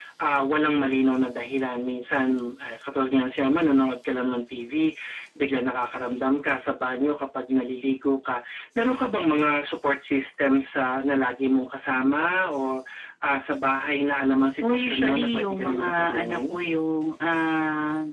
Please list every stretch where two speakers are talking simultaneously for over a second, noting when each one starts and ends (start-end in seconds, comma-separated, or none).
14.6-16.6